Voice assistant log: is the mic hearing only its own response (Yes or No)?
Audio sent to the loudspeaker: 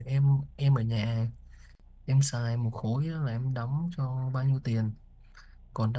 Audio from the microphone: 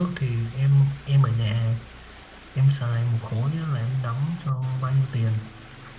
Yes